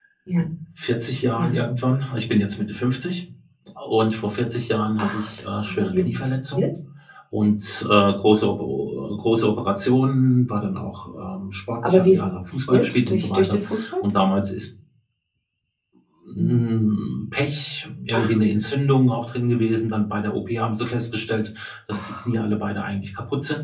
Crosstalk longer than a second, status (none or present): present